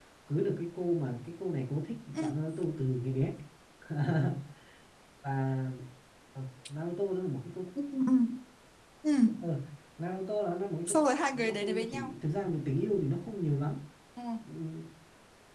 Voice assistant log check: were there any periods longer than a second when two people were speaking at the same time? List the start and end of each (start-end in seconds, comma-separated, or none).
10.9-12.1